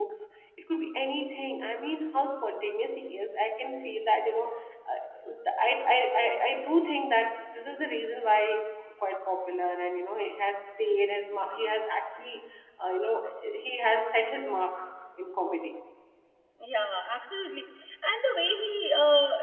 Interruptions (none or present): none